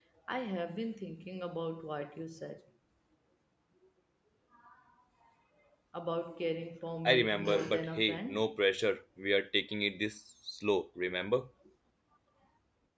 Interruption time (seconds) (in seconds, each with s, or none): 7.0 s